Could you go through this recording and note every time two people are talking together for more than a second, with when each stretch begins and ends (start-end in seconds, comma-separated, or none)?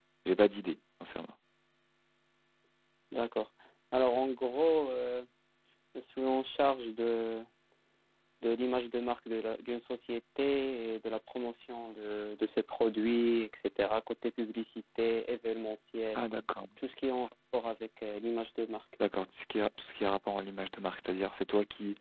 none